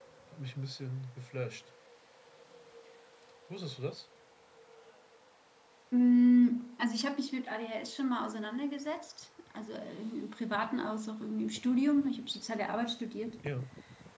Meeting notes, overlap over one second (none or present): none